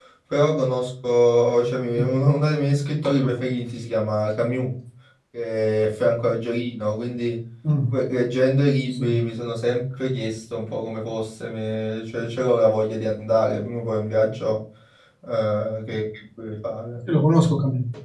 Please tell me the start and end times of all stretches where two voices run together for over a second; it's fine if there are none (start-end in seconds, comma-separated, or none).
none